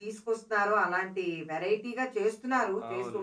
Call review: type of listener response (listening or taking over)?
taking over